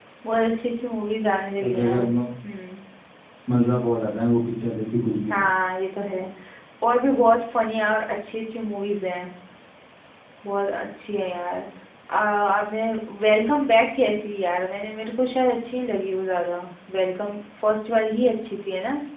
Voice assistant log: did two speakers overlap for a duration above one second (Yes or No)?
No